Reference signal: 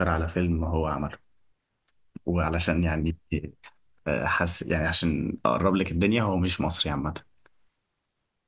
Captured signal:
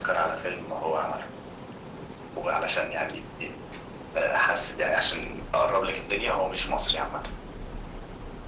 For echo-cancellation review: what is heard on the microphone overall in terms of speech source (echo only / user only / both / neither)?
echo only